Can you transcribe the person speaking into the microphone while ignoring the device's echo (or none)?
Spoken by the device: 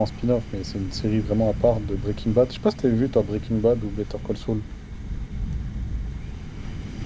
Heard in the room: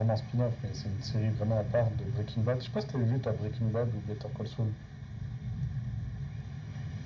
none